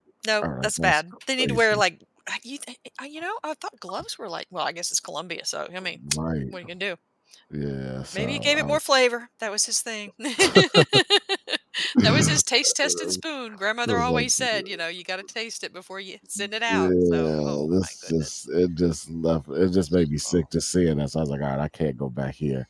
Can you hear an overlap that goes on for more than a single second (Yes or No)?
Yes